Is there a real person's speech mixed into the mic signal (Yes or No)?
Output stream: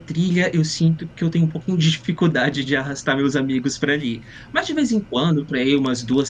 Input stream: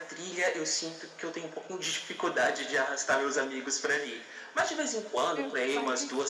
Yes